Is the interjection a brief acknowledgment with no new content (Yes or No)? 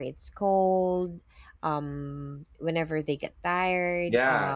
No